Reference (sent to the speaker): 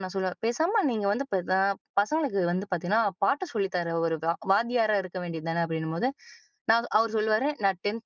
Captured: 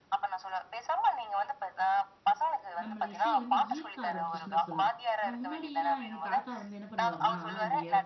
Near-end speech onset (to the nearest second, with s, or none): 3 s